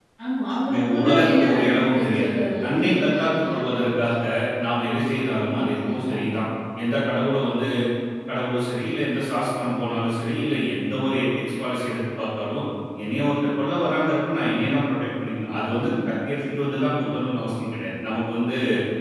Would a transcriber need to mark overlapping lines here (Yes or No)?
Yes